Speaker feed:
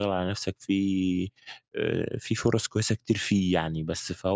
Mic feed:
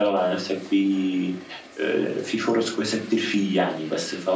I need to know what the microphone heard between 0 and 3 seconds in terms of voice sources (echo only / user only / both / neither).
echo only